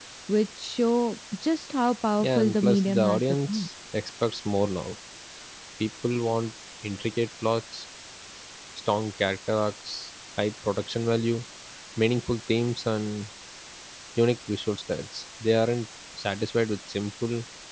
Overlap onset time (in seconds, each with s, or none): 2.2 s